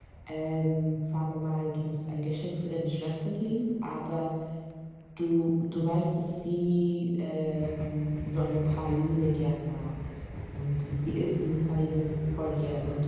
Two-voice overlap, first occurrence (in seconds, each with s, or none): none